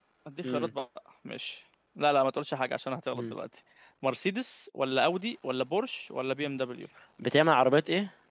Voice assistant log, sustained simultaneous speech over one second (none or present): none